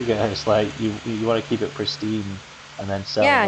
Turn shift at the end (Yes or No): Yes